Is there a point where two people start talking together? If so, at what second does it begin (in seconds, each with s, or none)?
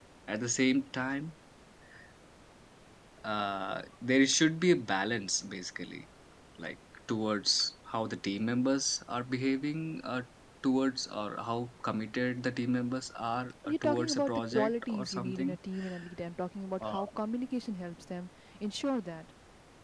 13.7 s